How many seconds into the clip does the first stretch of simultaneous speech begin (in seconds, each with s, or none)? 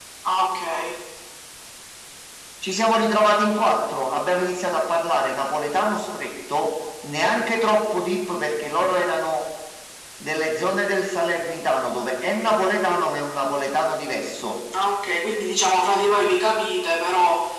none